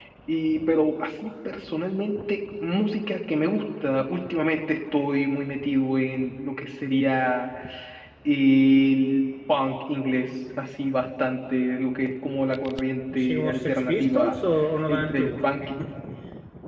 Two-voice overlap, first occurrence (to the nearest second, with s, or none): 13 s